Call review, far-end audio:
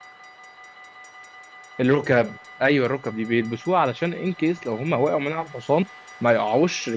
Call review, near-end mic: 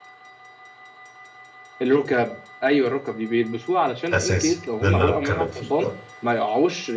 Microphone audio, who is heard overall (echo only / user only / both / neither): both